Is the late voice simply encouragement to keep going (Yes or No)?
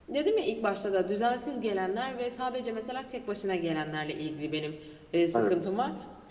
Yes